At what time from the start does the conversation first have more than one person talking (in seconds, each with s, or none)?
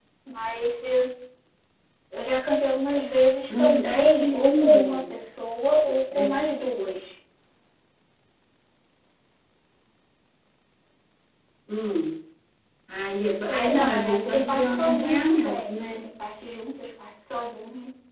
3.6 s